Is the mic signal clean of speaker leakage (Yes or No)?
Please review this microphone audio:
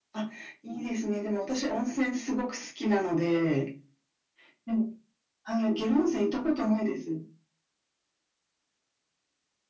No